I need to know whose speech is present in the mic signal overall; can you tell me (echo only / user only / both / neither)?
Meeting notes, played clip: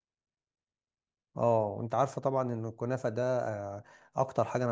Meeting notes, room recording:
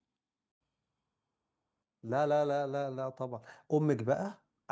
user only